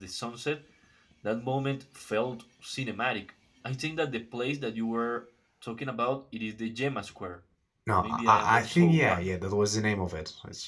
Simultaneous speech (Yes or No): Yes